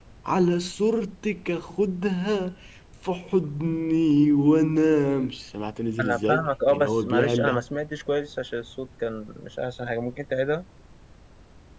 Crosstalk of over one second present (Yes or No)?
Yes